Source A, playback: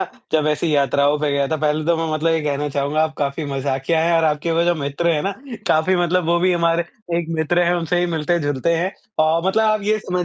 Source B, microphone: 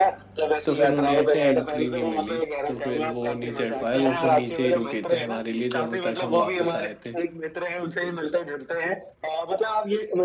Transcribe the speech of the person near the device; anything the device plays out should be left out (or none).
तो फिर उन्हें ऐसे एंट्री नहीं मिली, तो फिर वो नहीं चढ़ पाए, वो फिर नीचे ही रुके थे हमारे लिए जब तक हम वापस आए थे।